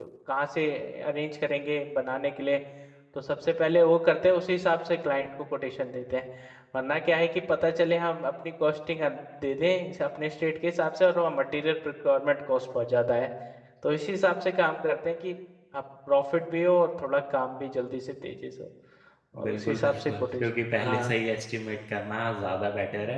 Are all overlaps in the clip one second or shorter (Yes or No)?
No